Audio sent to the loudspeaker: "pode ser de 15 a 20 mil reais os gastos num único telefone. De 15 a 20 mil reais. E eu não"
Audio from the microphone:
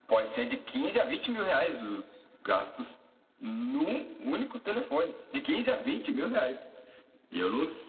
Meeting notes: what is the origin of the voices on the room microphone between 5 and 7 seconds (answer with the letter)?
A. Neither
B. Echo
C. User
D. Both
B